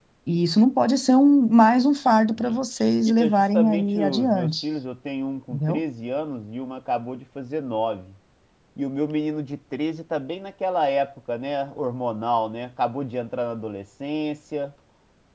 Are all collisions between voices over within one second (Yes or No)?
No